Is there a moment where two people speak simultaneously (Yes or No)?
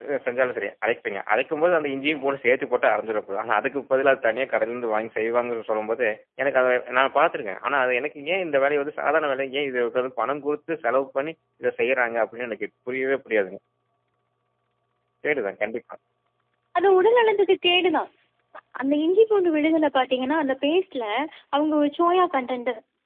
No